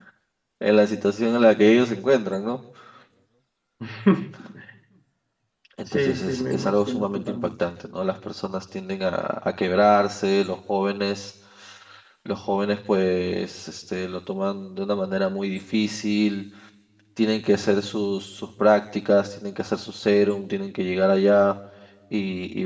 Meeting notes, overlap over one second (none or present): present